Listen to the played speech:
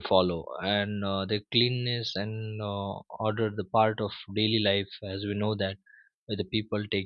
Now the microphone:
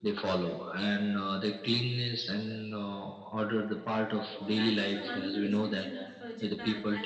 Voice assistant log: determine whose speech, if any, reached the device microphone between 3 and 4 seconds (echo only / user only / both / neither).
echo only